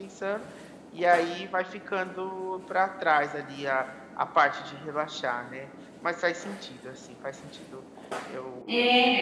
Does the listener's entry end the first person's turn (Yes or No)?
Yes